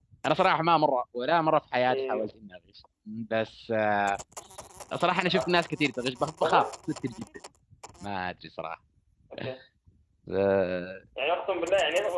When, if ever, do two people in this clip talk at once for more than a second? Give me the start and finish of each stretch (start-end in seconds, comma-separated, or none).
none